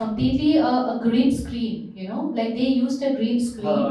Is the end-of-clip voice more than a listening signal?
No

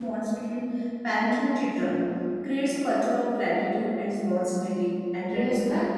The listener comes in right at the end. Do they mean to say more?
Yes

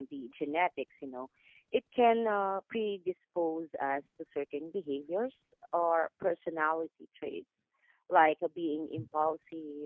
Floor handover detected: No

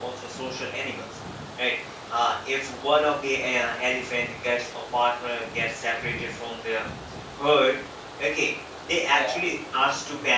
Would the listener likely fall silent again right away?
Yes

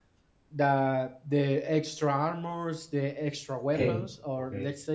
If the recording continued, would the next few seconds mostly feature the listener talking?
No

